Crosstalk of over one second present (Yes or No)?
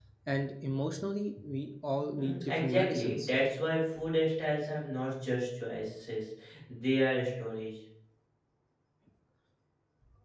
Yes